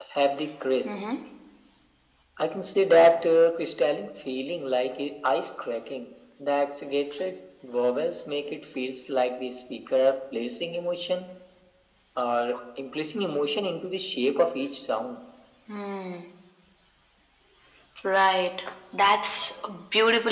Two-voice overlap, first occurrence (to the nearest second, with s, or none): none